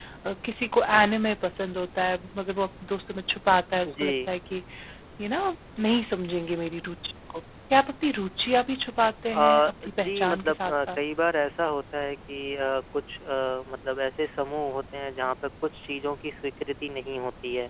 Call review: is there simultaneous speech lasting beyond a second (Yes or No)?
Yes